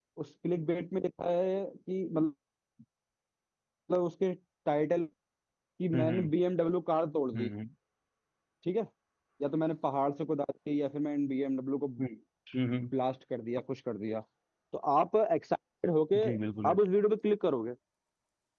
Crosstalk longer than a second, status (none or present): none